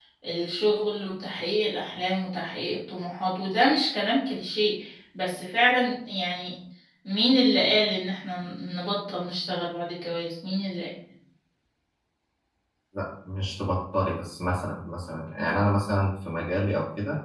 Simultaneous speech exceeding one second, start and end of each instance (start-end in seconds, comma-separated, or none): none